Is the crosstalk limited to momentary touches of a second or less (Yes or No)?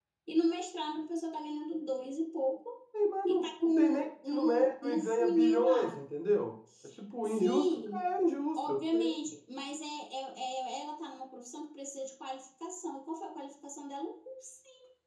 No